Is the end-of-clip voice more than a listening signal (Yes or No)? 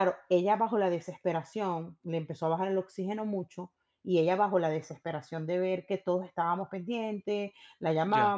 No